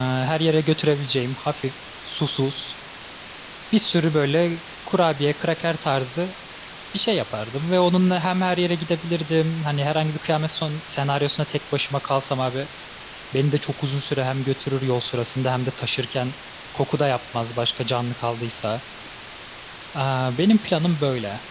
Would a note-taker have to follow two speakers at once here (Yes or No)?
No